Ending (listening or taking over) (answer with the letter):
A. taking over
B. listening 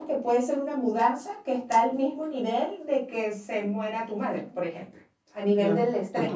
A